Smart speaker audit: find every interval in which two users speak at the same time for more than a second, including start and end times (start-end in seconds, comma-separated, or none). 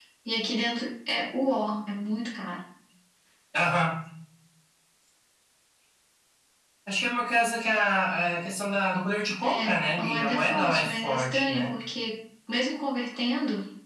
9.4-11.7